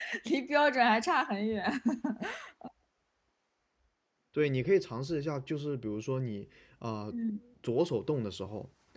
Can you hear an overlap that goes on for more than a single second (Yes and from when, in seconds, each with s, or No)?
No